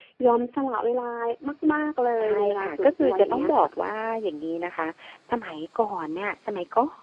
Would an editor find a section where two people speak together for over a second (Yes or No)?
Yes